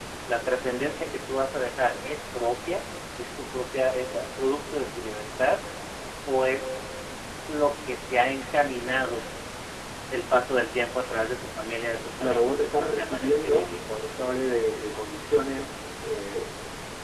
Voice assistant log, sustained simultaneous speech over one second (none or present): present